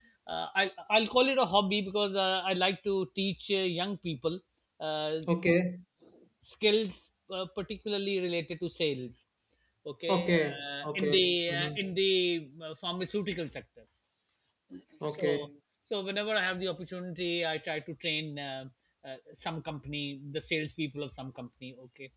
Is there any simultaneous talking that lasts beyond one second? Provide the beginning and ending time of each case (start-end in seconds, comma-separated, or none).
10.1-11.8